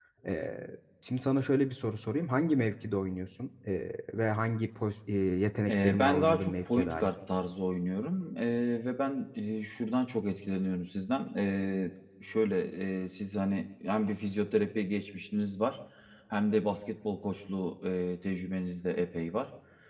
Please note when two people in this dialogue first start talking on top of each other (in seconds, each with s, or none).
5.7 s